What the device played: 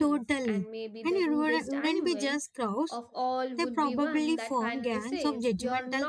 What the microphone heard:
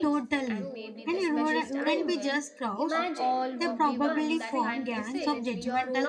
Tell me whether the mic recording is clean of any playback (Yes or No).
No